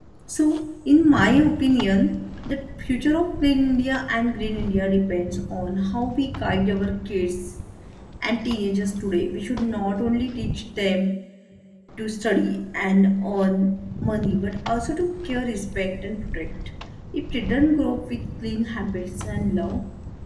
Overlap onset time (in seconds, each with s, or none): none